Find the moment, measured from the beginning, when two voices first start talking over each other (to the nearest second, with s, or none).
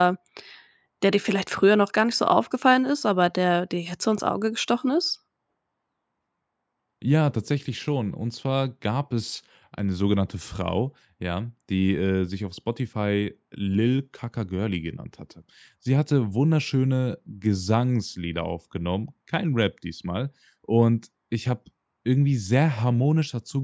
none